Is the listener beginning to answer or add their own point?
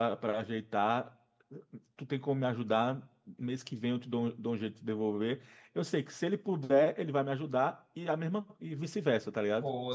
Yes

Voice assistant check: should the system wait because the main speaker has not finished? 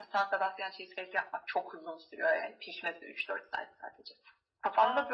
Yes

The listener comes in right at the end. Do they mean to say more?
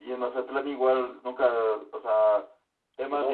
No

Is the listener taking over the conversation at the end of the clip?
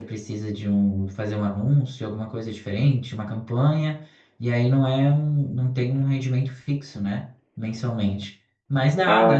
No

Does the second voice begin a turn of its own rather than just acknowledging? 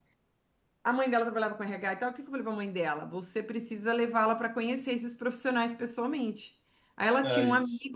No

